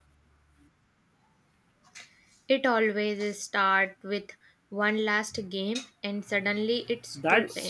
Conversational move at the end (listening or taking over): taking over